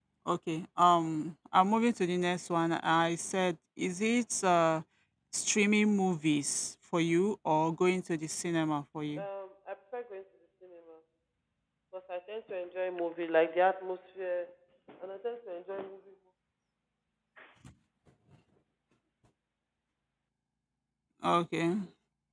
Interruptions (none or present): none